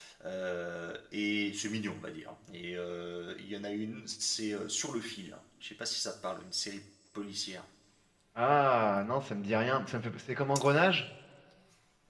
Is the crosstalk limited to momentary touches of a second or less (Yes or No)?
Yes